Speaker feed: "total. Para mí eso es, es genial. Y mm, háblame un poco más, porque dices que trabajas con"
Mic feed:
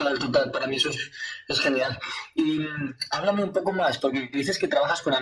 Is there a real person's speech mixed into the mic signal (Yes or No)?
No